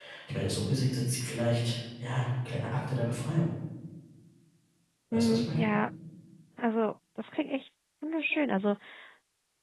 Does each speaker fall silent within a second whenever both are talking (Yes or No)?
Yes